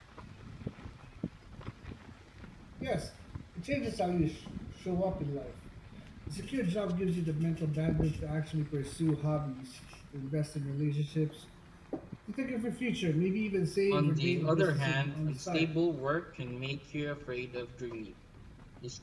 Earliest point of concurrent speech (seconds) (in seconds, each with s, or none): 13.9 s